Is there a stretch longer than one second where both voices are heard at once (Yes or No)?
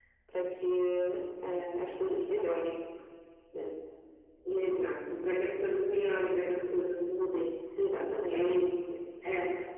No